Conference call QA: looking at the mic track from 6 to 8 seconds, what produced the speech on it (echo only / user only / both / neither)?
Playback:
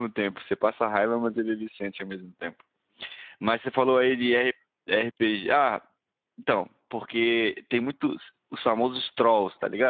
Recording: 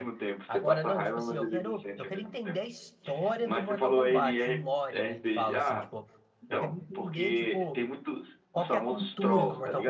both